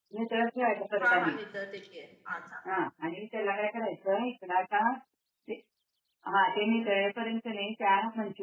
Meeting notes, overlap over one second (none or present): none